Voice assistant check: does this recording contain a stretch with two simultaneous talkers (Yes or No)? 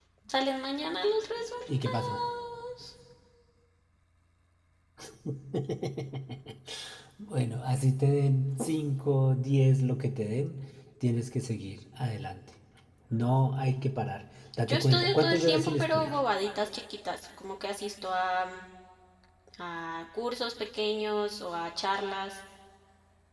Yes